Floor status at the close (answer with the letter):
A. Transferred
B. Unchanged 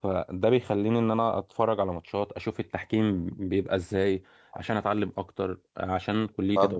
A